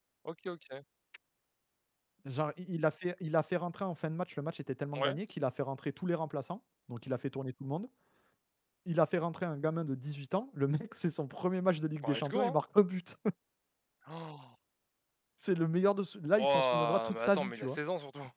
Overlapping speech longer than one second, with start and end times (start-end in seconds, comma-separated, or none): 16.4-17.8